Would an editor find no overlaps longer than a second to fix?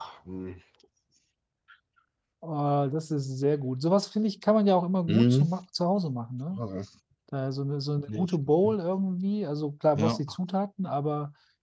Yes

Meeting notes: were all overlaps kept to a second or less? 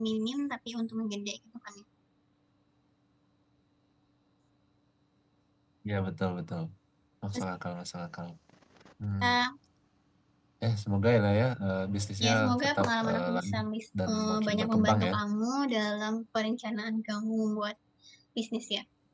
No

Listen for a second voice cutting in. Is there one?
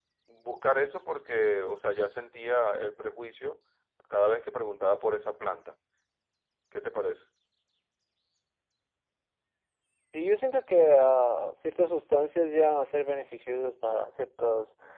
No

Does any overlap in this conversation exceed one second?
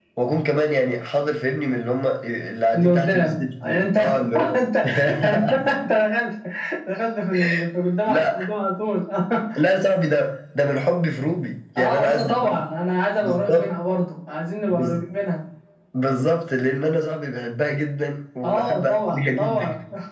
Yes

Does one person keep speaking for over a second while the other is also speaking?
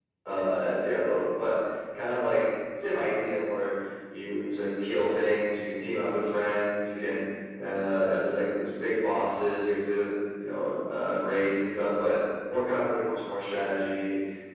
No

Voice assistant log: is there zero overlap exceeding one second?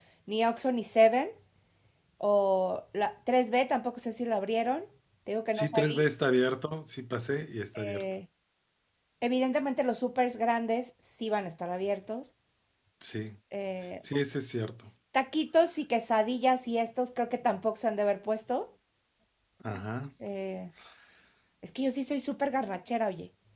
Yes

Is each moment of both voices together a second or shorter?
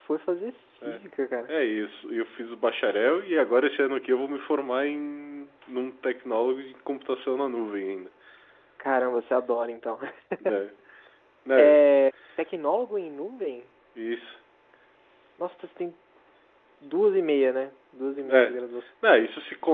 Yes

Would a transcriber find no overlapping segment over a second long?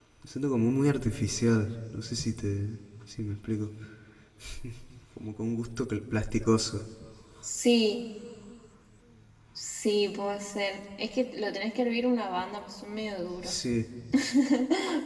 Yes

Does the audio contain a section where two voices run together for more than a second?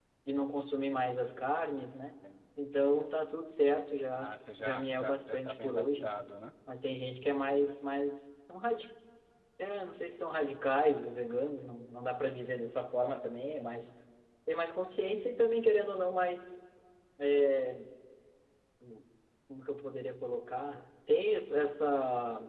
Yes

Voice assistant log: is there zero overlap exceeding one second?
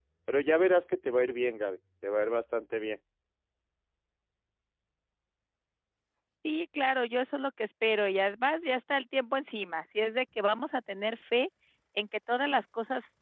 Yes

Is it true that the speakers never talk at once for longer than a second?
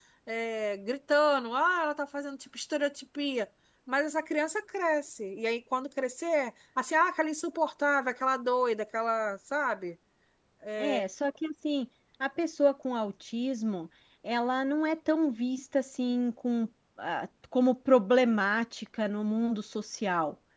Yes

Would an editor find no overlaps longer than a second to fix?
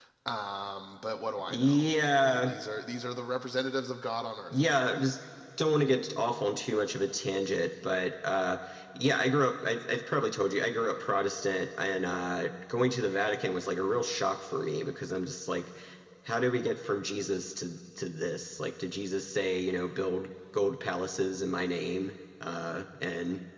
Yes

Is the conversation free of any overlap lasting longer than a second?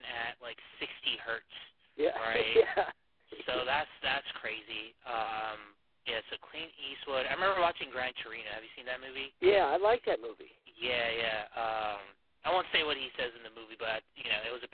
Yes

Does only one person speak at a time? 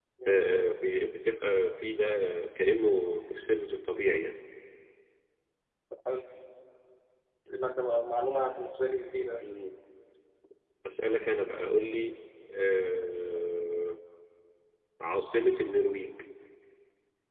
Yes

